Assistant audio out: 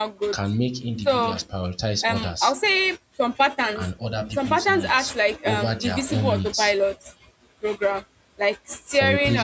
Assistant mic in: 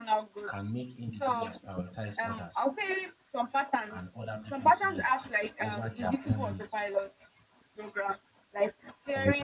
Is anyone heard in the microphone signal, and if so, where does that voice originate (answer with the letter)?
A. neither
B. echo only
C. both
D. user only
B